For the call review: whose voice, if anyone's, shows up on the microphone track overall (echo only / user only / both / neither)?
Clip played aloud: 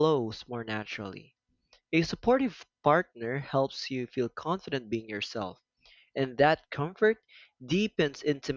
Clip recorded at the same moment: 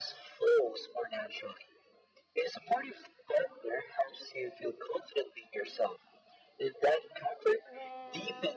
both